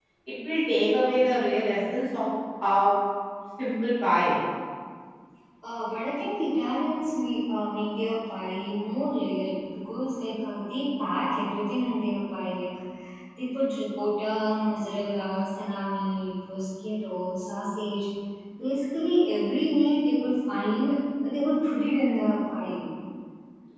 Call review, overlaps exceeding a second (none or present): none